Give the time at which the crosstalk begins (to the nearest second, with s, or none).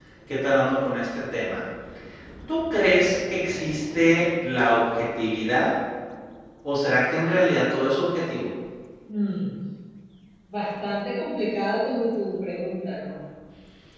none